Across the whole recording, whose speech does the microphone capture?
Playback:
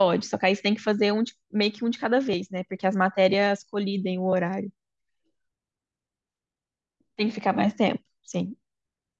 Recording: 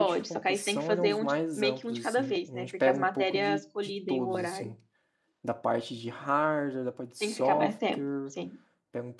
both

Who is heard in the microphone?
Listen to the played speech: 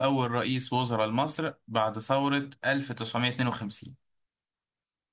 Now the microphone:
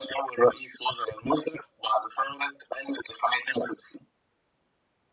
echo only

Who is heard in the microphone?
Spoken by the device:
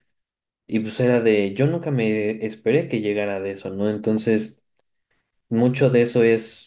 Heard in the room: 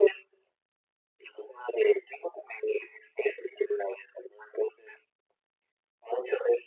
echo only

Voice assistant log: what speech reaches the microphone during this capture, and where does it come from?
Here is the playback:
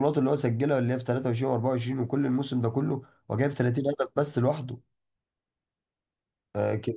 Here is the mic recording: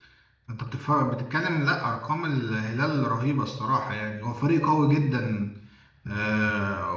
user only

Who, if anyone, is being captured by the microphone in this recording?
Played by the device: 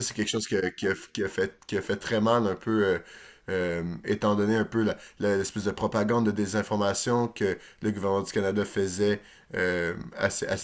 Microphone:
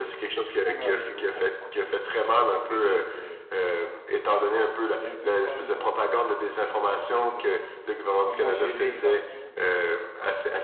both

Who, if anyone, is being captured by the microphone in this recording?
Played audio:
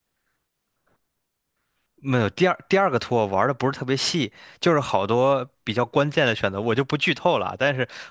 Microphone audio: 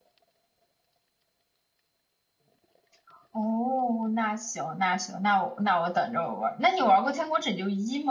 user only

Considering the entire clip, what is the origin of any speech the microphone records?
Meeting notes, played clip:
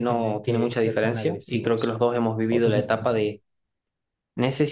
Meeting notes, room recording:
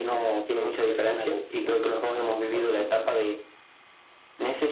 echo only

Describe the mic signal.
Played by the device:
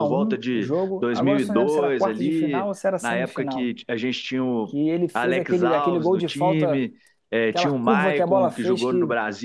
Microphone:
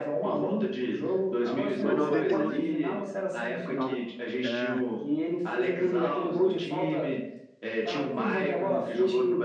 both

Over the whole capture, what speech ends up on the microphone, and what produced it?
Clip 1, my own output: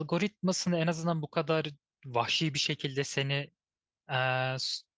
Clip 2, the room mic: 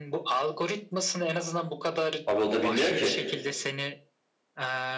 both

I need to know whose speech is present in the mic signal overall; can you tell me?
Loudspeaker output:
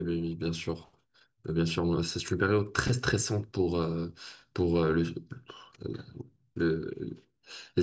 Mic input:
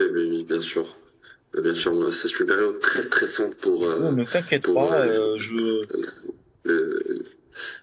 both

